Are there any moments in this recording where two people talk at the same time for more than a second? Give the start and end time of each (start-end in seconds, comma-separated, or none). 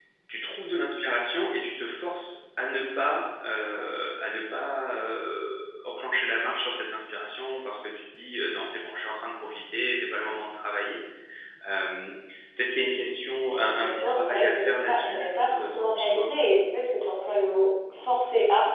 13.4-16.3